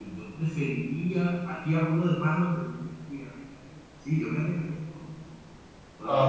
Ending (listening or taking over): taking over